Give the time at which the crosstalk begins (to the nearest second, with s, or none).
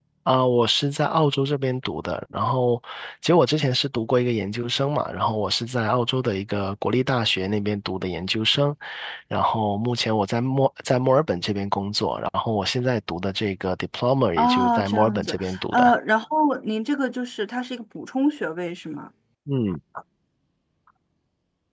14 s